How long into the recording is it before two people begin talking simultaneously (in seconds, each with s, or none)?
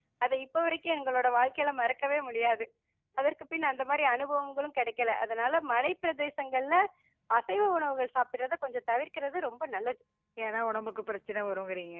none